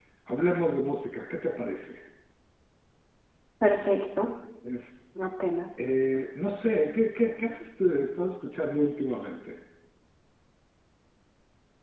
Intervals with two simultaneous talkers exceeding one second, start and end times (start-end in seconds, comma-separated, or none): none